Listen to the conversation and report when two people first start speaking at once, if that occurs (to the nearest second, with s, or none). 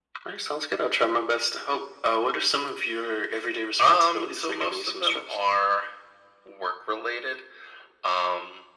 4 s